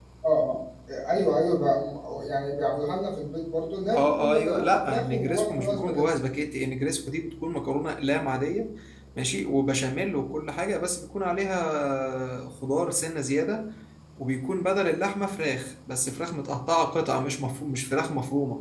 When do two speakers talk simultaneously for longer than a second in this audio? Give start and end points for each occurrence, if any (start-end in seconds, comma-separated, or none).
3.9-6.0